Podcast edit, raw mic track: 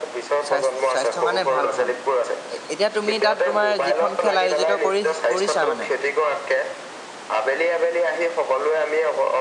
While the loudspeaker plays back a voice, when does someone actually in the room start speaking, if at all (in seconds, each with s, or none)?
0.5 s